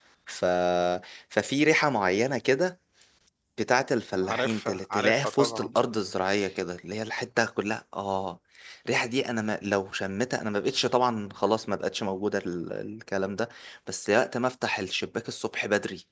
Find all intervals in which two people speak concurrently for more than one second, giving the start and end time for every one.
4.2-5.7

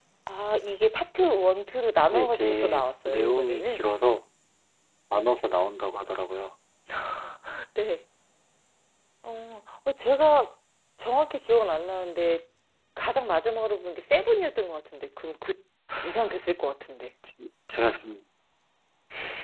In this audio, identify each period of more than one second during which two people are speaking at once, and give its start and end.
2.1-3.9

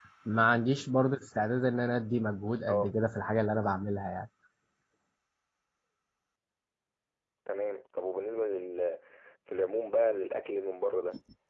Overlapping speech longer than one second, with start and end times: none

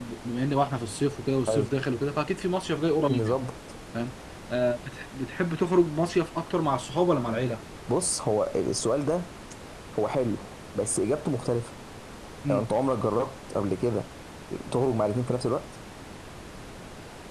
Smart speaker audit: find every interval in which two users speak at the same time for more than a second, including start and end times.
none

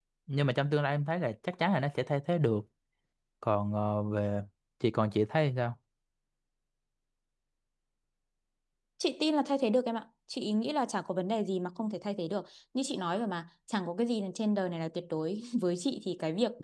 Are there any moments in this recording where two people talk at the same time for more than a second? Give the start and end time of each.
none

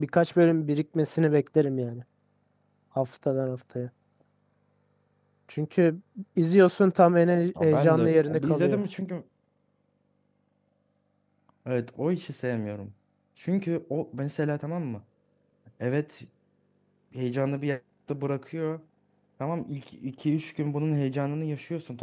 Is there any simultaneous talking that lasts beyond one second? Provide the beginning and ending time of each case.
7.6-8.8

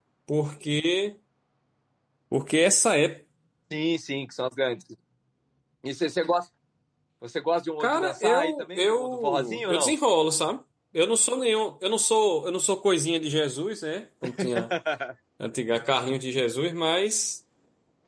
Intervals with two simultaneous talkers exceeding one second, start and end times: 7.8-9.9

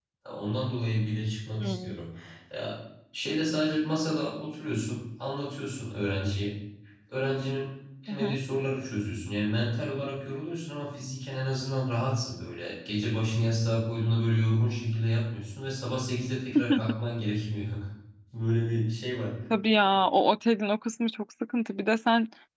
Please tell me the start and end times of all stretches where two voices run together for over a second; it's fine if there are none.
none

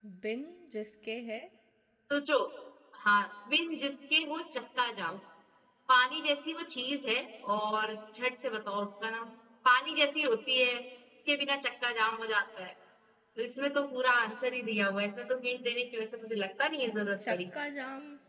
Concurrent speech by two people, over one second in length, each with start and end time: none

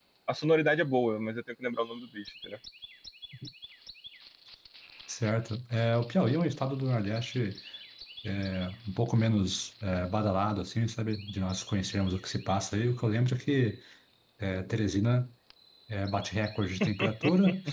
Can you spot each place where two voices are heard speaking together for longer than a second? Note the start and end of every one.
none

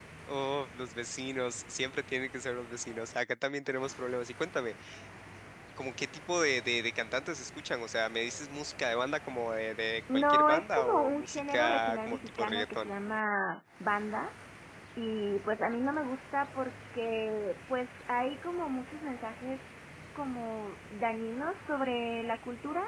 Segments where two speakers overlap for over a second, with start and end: 10.1-12.9

